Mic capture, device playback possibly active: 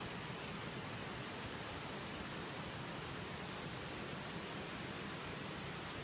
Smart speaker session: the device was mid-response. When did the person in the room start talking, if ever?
none

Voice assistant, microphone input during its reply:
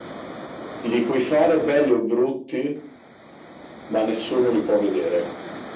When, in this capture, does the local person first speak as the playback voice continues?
none

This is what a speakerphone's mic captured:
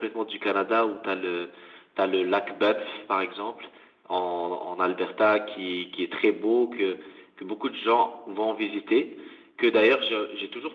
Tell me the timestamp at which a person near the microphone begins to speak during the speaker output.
none

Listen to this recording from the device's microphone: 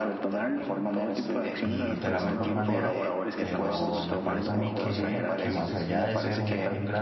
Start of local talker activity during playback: 1.6 s

